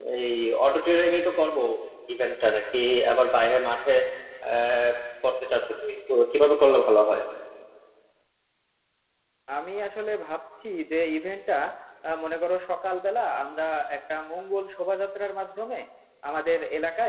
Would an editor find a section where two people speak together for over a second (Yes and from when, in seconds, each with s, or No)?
No